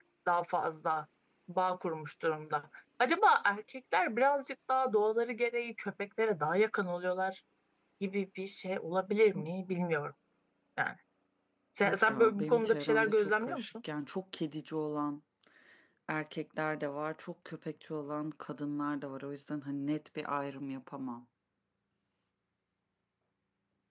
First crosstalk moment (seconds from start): 12 s

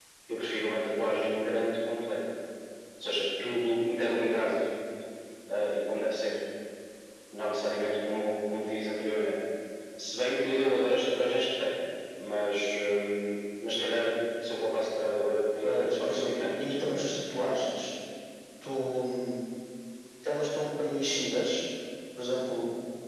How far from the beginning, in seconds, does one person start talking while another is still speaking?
16 s

